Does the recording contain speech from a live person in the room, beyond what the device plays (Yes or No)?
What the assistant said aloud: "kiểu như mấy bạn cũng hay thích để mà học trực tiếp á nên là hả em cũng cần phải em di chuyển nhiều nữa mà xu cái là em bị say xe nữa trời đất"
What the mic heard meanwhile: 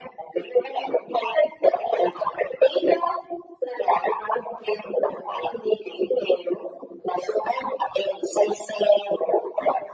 No